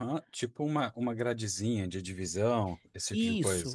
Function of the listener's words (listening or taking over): taking over